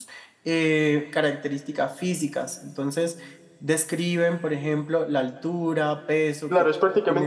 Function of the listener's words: taking over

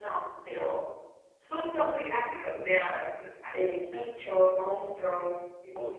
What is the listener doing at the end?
taking over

